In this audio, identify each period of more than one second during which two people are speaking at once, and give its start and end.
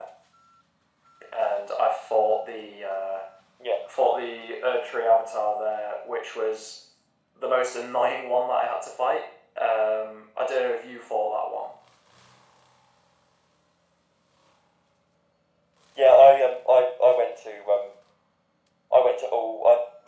none

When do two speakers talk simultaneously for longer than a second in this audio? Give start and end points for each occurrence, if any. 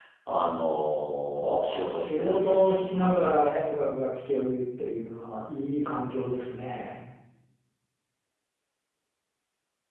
1.4-3.7

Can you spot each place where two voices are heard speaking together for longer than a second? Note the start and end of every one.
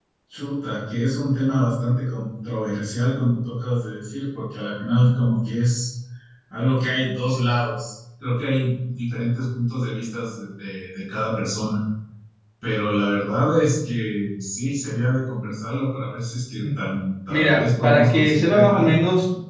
17.3-18.9

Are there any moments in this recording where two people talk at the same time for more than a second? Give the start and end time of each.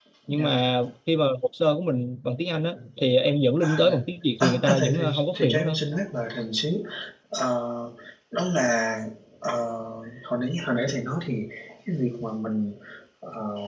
4.4-5.8

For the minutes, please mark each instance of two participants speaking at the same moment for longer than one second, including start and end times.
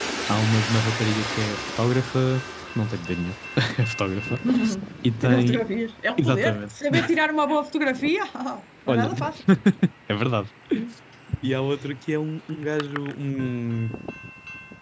none

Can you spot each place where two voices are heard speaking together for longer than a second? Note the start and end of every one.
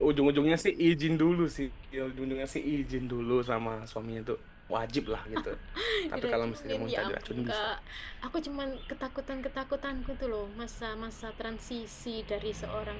6.1-7.6

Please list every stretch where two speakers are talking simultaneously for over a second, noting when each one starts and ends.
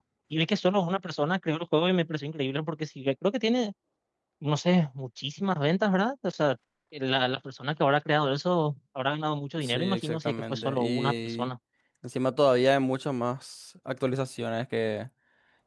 9.6-11.5

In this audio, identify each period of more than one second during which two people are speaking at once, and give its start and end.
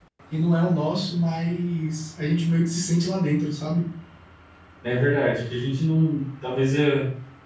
none

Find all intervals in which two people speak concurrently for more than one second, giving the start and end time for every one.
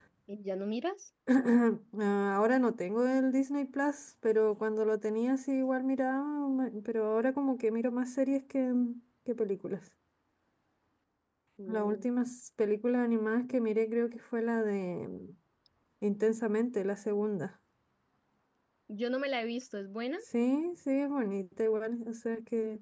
none

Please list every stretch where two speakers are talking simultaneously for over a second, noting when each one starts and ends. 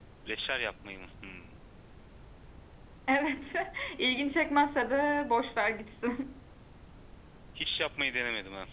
none

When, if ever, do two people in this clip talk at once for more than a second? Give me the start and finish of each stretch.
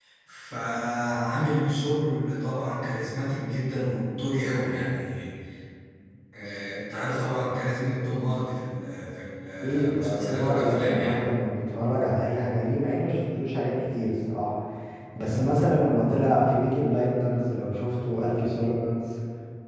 9.6-11.2

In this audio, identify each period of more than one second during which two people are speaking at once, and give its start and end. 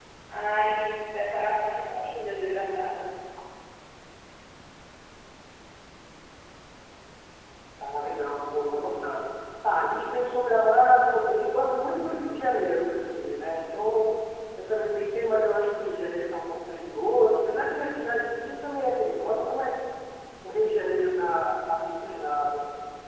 none

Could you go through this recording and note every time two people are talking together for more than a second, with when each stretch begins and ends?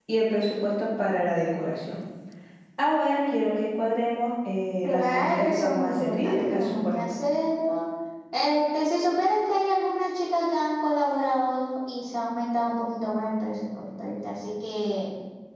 4.8-7.0

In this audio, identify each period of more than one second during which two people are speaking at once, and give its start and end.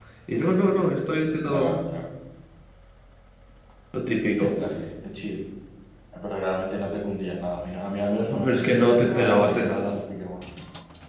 8.4-10.0

